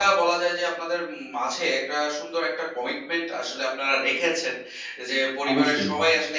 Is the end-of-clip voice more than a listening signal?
No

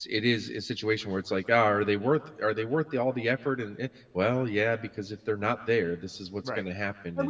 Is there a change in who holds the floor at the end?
Yes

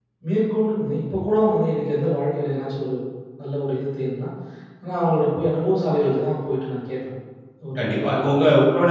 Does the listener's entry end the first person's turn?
Yes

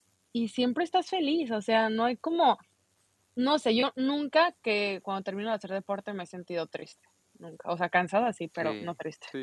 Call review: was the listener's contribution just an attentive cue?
No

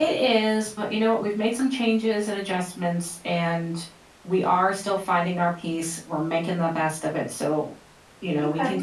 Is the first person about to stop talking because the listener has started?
Yes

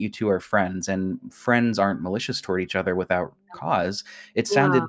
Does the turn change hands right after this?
No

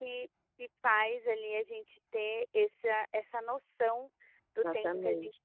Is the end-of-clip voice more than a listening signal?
No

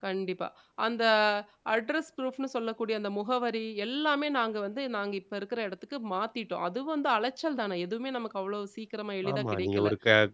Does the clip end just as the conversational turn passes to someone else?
Yes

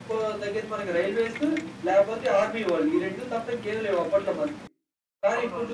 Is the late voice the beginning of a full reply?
No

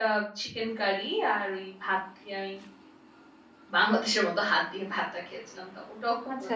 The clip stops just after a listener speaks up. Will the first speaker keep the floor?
No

